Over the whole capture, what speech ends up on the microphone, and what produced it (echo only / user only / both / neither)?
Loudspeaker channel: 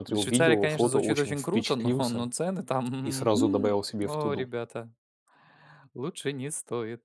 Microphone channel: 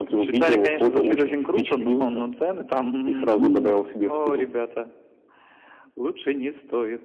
echo only